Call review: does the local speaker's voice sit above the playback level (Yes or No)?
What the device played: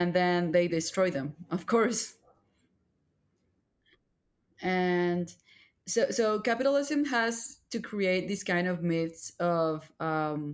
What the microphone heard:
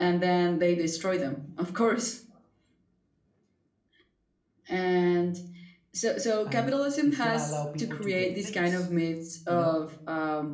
No